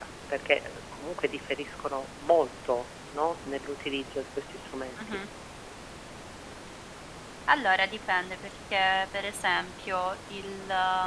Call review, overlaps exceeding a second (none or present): none